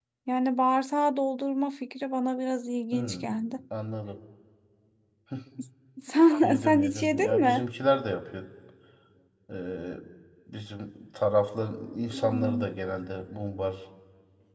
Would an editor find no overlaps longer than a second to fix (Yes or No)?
No